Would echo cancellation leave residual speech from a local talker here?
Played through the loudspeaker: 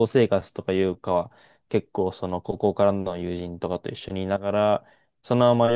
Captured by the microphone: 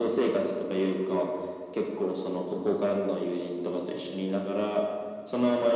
No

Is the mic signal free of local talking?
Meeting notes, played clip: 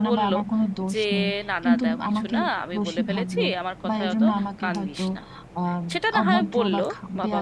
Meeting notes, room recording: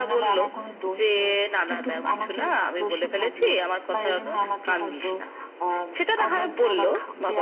Yes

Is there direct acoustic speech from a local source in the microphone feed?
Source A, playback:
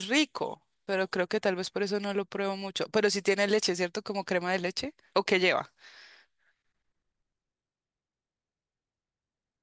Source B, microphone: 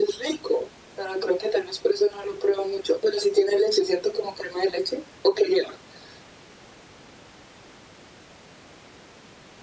No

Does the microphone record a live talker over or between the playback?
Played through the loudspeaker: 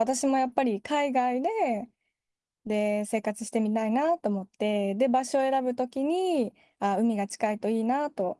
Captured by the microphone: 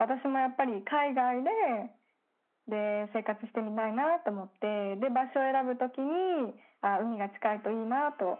No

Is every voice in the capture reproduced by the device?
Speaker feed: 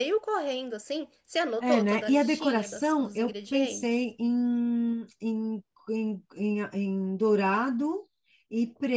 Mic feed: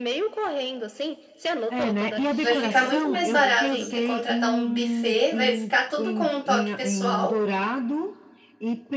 No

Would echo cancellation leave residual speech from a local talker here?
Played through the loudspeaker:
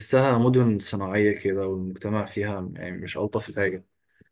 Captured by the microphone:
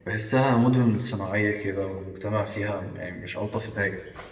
No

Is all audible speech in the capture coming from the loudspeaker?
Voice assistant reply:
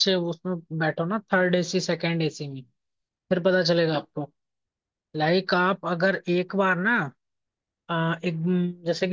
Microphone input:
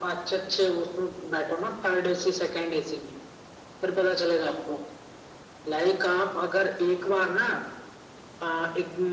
Yes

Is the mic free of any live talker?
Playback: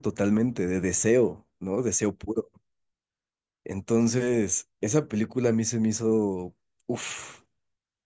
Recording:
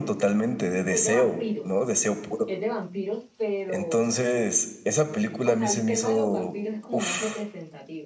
No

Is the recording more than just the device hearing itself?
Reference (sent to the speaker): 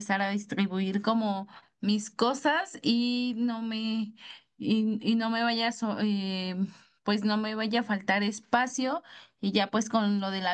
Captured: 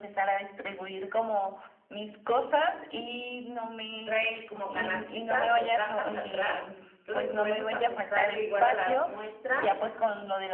Yes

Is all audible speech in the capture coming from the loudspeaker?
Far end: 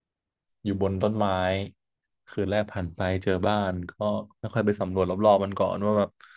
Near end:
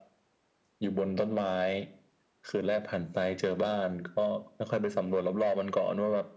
Yes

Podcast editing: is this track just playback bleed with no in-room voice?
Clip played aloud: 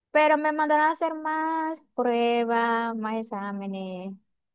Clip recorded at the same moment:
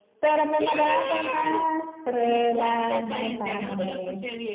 No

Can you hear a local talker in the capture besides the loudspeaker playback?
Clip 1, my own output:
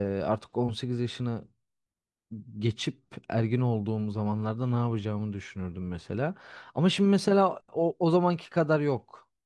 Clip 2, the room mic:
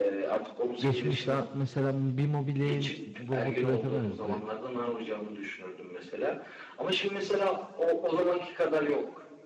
Yes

